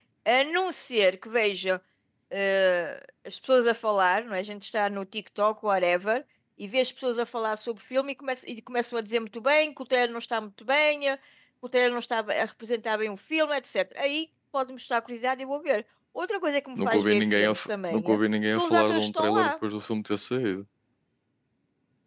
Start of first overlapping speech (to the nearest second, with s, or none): 17 s